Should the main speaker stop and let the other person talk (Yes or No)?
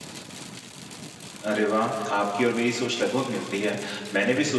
No